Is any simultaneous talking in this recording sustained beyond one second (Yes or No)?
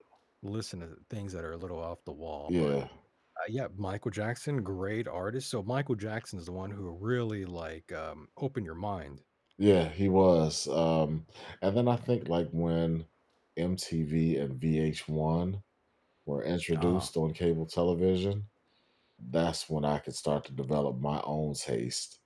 No